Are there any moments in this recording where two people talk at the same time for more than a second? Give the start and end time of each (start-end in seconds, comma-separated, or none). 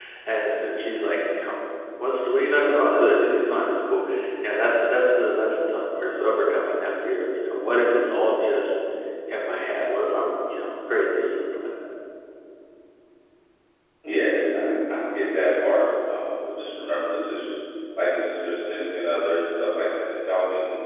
none